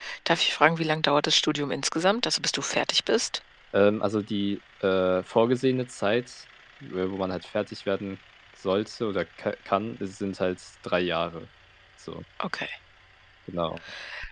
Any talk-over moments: No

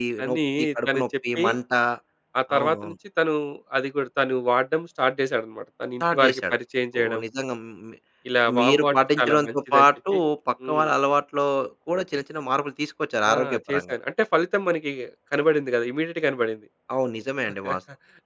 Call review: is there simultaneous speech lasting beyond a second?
Yes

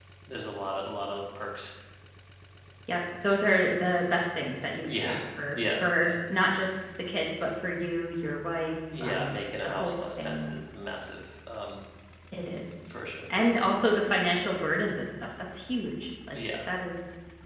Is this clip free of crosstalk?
No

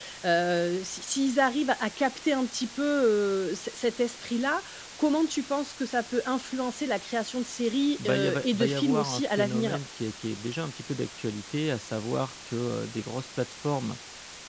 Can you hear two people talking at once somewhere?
Yes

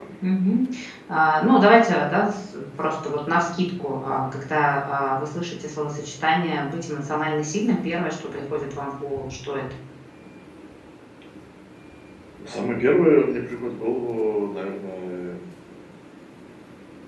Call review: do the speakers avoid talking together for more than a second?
Yes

